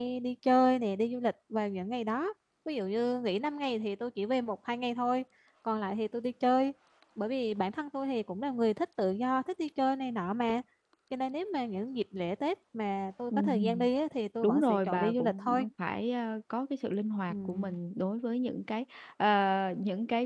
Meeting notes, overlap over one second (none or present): present